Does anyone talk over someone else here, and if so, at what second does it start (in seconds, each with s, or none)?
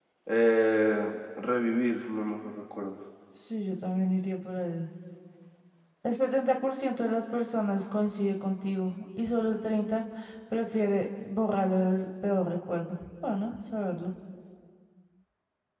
none